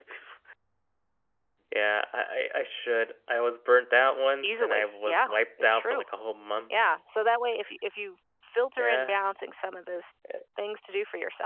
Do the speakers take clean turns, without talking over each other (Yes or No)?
No